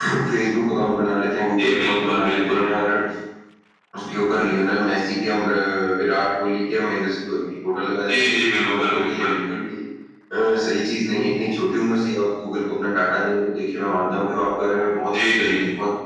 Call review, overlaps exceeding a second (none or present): present